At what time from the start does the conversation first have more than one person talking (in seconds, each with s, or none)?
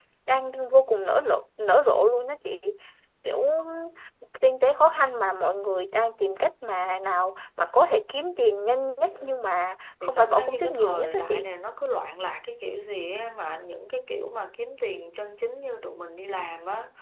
10.0 s